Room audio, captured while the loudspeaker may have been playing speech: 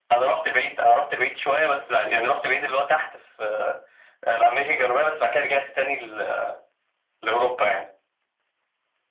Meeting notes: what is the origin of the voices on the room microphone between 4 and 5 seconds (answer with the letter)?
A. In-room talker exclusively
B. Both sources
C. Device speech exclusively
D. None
C